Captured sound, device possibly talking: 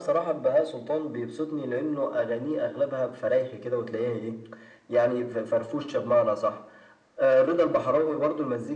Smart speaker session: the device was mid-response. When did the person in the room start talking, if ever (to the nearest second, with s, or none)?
none